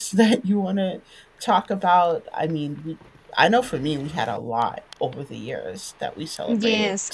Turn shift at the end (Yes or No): Yes